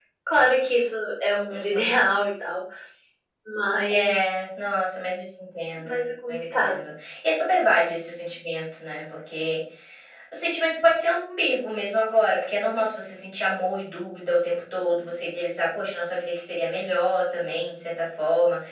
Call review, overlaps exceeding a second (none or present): none